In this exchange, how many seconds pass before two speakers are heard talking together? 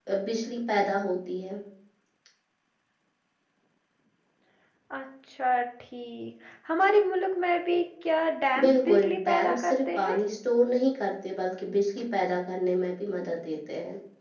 8.6 s

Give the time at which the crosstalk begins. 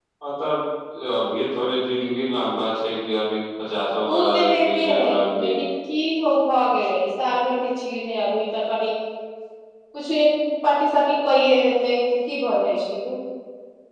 4.0 s

